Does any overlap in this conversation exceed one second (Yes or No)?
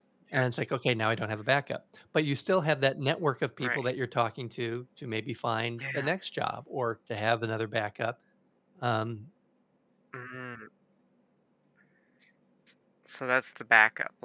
No